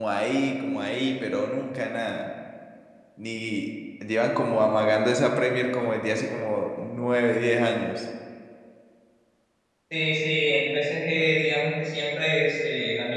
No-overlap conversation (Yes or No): Yes